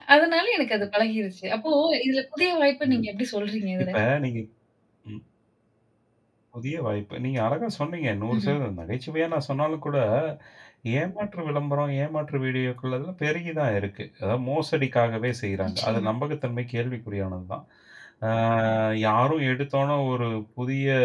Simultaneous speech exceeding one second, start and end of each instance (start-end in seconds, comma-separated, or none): none